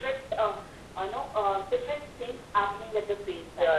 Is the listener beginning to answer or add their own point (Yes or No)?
Yes